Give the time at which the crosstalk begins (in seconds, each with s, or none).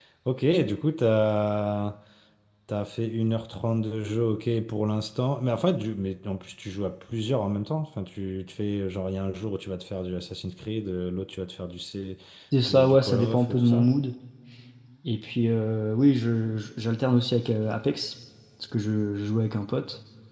12.6 s